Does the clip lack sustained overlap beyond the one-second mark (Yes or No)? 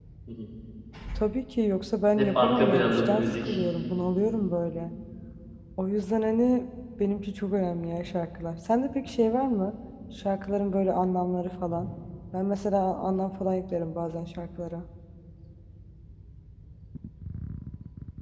No